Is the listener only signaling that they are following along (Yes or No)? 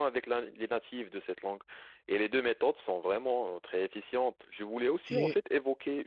Yes